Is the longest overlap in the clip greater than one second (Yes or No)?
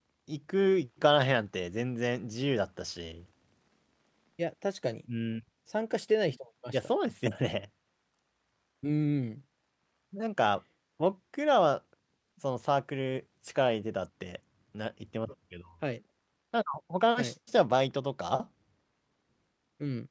No